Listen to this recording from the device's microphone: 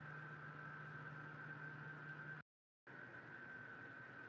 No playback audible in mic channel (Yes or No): Yes